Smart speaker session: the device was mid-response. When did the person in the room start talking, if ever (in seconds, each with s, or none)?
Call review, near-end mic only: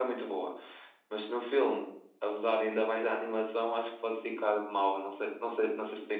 none